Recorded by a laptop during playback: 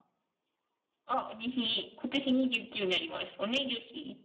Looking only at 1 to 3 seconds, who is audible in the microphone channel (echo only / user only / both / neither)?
user only